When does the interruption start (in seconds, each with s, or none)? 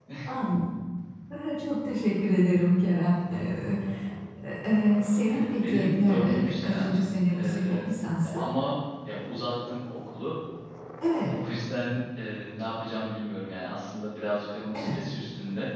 5.2 s